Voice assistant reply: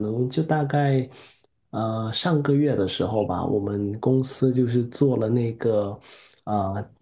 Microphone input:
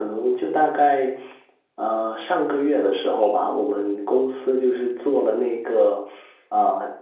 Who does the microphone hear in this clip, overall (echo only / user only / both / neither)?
echo only